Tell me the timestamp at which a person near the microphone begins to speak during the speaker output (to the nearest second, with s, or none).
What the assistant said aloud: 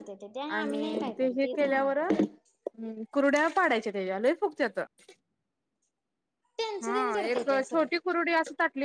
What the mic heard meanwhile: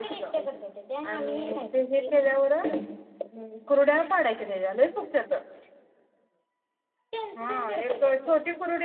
none